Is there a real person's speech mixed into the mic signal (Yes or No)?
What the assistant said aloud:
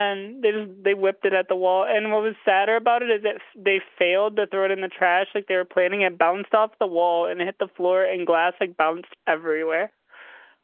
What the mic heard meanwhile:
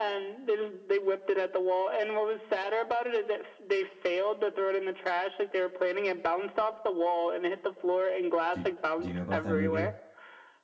Yes